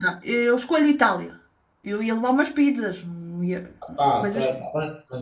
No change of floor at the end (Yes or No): No